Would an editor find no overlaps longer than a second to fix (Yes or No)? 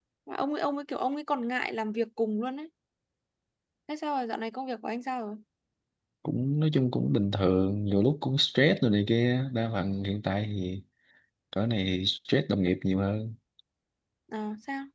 Yes